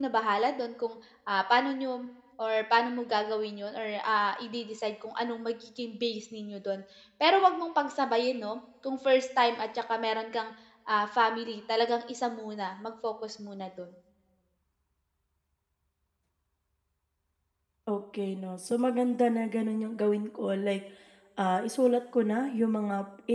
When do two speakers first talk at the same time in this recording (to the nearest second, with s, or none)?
none